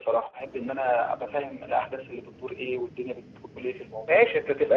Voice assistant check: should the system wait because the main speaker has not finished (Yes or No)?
No